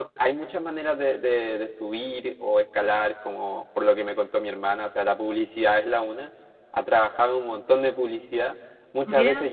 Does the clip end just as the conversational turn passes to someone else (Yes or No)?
No